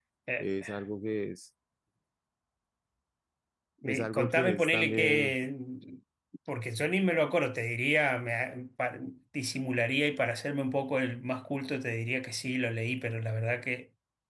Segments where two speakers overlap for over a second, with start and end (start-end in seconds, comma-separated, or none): 3.8-5.4